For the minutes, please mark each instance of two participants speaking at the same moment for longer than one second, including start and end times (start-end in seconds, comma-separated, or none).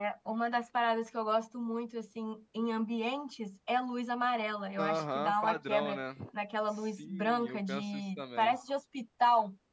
4.8-6.0, 6.7-8.6